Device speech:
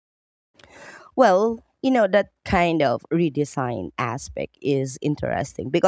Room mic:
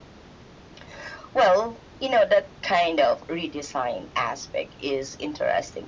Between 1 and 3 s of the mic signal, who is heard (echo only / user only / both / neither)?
echo only